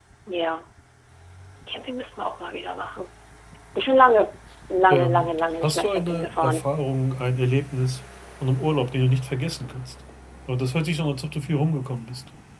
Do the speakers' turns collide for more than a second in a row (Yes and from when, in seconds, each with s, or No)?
Yes, from 4.9 s